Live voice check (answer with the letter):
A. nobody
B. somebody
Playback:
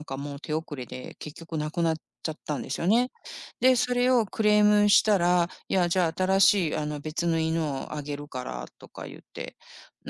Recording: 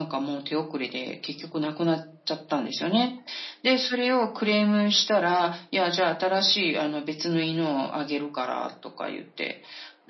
A